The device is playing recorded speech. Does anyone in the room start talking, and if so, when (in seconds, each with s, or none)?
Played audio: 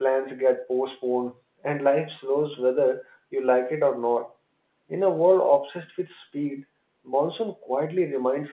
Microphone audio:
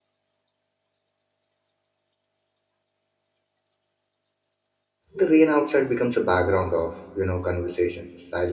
5.1 s